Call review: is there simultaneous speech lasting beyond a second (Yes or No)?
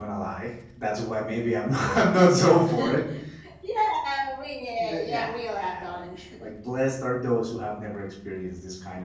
Yes